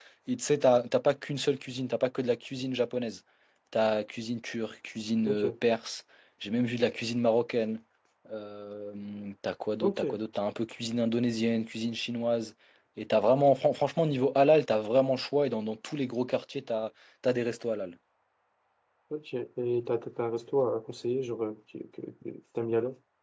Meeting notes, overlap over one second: none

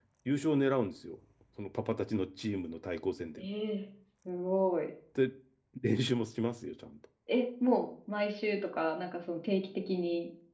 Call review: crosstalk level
none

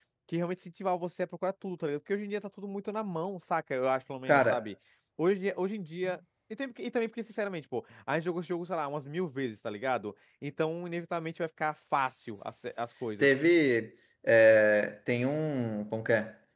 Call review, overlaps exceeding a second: none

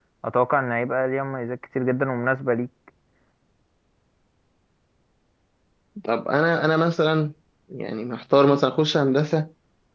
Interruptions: none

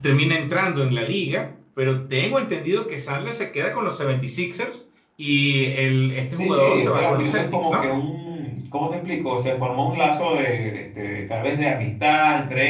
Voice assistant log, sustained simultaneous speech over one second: present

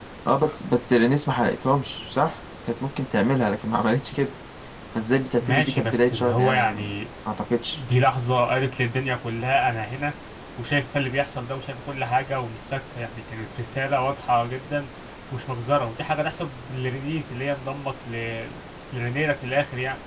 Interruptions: present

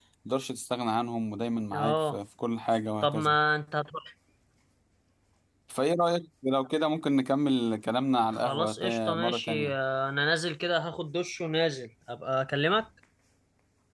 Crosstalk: present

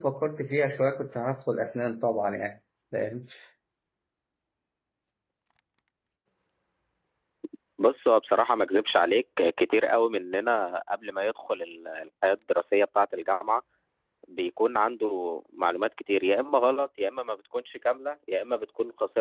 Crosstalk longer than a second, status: none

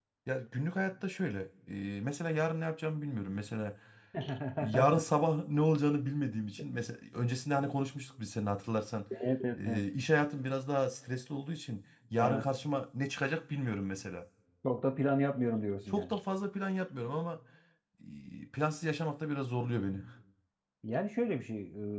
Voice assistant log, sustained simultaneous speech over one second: none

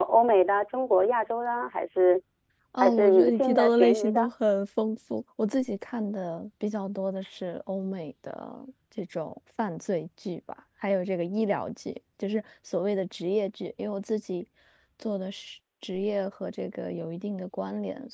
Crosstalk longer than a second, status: present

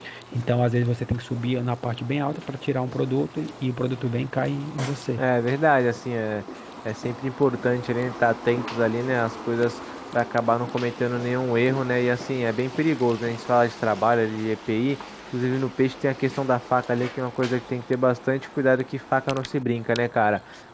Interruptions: none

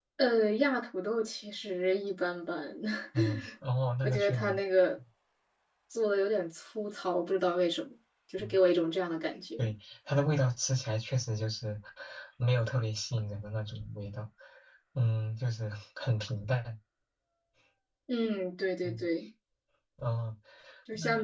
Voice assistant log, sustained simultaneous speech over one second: none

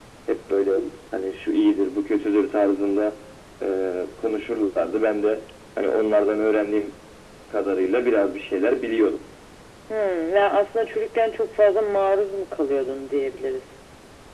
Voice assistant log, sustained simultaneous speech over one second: none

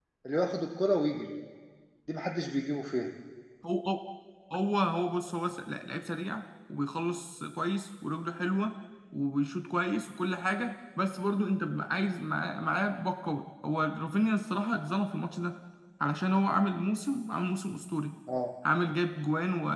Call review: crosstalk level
none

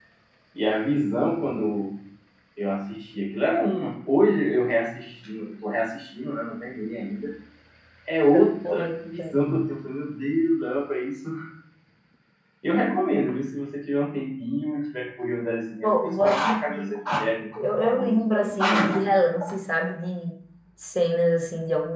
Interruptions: present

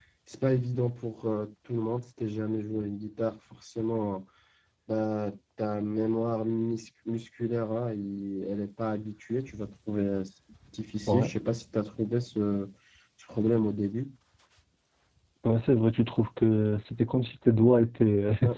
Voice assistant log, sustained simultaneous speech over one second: none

